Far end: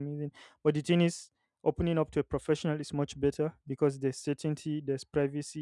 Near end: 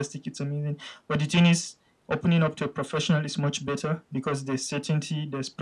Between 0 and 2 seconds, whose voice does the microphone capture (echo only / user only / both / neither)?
echo only